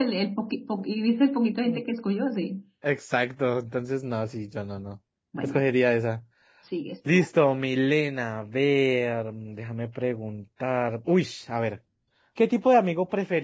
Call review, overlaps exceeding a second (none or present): none